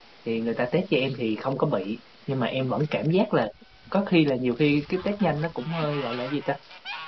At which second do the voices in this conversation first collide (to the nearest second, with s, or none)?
none